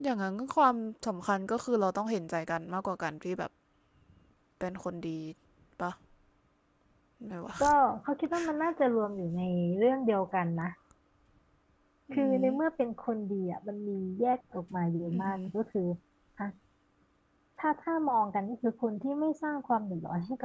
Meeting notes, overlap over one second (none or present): none